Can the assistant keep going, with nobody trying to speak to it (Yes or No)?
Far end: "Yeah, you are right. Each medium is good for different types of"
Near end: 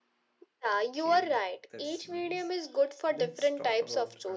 No